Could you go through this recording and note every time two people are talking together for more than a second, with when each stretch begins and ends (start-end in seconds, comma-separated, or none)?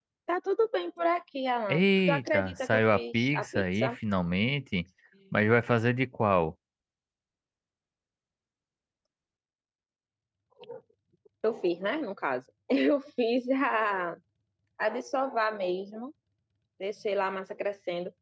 1.7-4.0